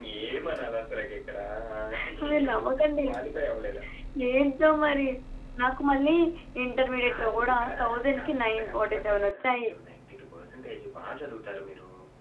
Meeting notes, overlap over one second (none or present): present